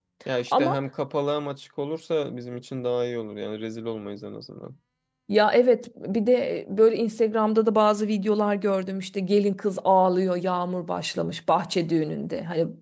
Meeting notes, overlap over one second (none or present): none